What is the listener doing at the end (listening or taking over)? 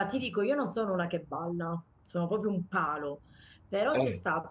listening